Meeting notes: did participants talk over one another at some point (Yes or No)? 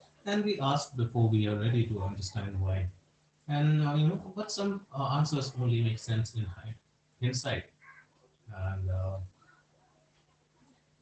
No